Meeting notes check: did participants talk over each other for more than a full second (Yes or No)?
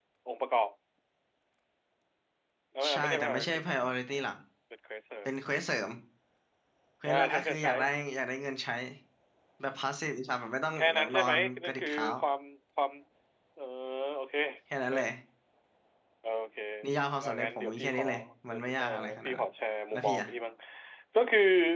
Yes